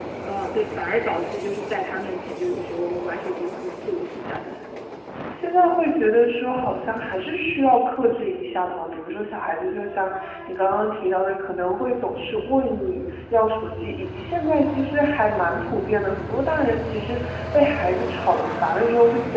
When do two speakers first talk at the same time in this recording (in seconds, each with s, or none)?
none